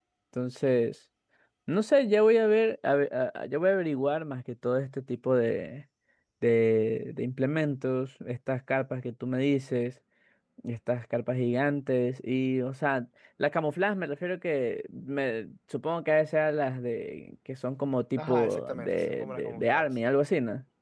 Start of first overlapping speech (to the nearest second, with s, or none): 18 s